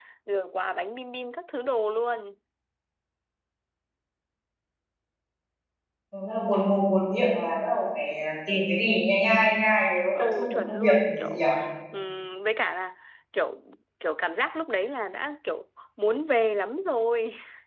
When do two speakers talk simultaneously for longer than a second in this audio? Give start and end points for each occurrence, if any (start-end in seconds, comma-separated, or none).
10.2-11.4